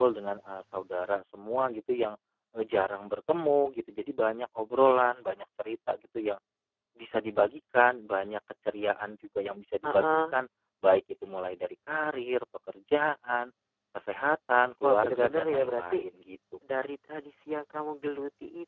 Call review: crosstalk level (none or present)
present